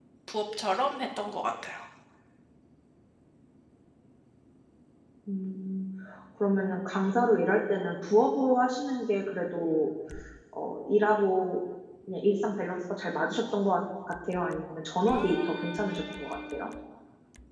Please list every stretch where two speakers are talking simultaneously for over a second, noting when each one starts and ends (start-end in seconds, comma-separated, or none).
15.1-16.7